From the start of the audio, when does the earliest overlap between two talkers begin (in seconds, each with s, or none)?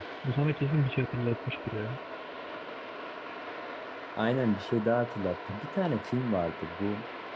none